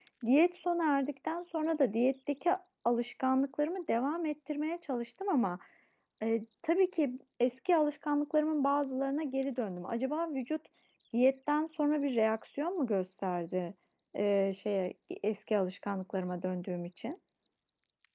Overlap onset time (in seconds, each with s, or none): none